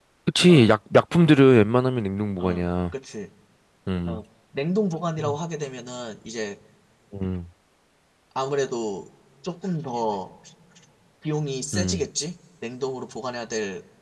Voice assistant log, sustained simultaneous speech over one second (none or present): none